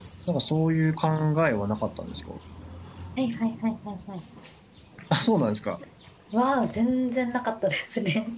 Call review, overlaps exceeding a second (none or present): none